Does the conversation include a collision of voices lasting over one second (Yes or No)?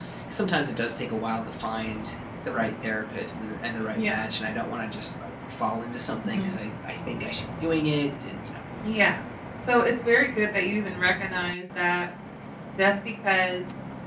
No